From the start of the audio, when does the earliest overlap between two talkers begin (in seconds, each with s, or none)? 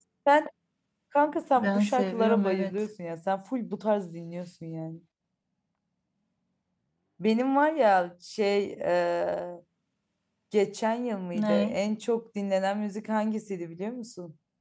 1.6 s